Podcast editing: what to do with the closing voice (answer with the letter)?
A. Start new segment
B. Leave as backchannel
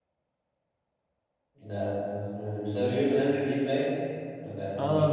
A